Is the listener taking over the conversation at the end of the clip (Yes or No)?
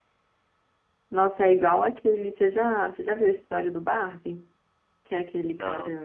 No